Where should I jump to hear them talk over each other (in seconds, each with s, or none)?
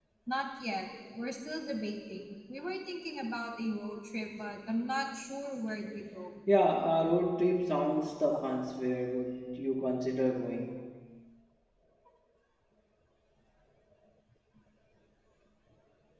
none